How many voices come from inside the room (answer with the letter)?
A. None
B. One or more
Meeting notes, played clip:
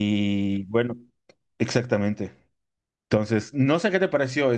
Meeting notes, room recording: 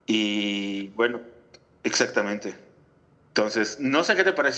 A